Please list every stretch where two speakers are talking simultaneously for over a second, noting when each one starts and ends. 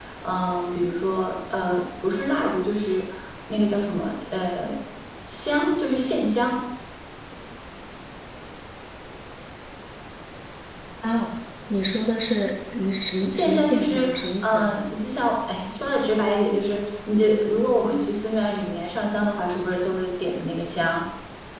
13.3-14.7

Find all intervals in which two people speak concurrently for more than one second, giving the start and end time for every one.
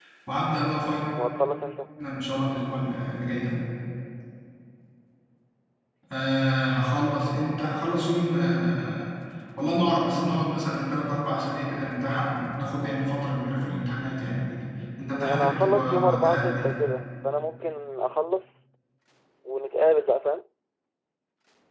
15.1-16.7

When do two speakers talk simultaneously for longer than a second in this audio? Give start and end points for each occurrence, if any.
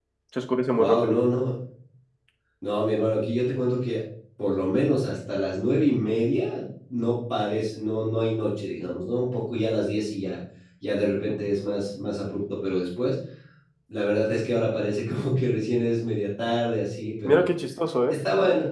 none

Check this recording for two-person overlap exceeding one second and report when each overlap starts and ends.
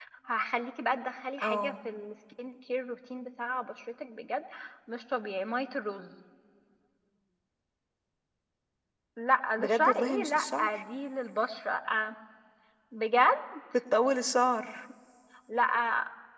9.6-10.8

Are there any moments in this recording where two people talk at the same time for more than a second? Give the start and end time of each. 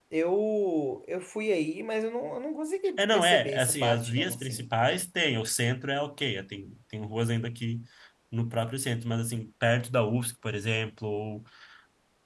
3.0-4.7

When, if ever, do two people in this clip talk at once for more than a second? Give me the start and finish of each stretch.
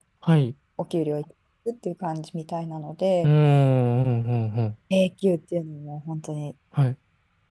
none

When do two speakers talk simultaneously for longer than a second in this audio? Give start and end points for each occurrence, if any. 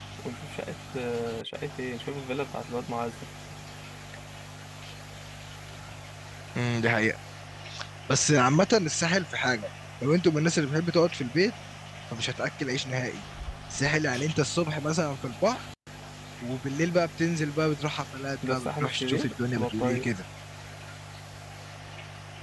18.5-20.1

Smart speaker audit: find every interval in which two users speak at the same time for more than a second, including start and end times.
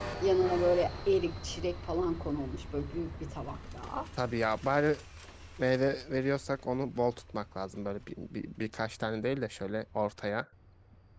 none

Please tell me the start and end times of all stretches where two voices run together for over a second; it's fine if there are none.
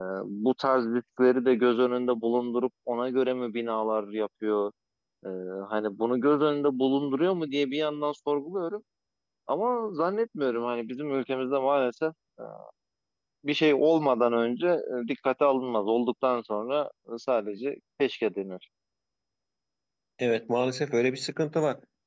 none

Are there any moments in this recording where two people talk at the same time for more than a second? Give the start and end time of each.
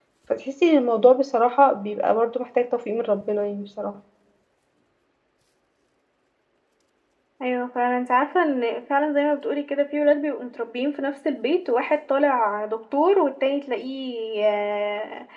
none

